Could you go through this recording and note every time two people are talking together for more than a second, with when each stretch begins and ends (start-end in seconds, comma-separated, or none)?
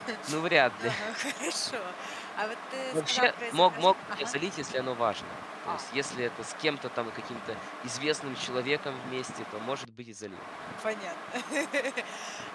2.9-4.3